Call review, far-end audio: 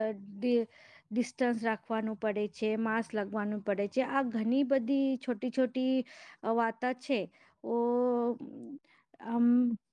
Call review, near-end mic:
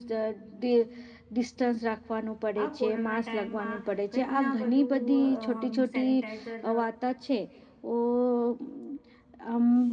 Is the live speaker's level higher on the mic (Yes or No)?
No